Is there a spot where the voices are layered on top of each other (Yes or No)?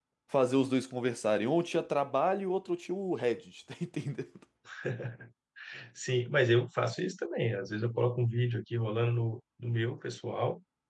No